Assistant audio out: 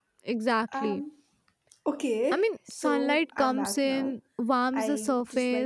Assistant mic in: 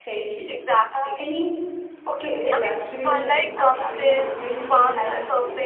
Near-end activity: present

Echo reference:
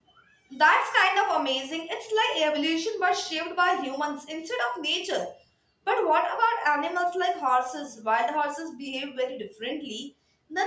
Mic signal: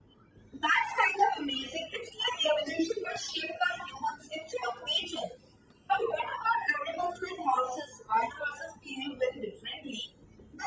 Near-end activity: none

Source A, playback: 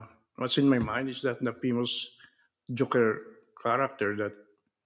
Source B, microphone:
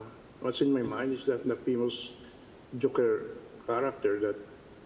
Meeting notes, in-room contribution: none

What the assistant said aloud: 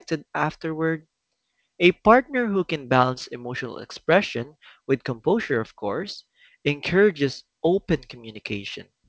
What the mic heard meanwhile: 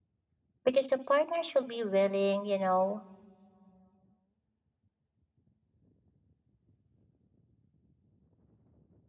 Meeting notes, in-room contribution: present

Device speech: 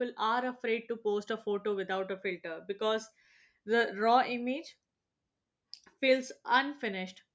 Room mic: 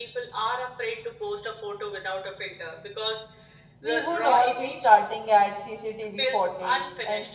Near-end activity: present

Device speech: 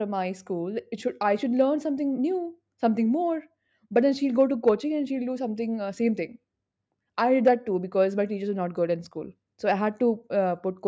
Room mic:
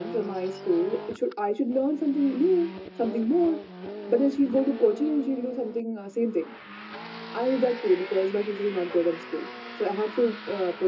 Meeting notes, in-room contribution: none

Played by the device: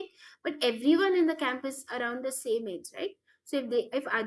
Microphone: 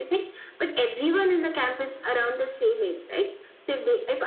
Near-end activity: none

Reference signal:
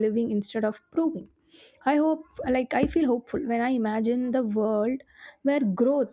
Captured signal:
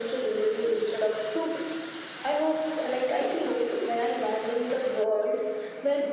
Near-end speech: none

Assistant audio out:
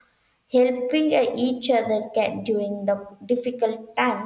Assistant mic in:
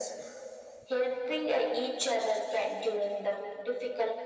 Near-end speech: none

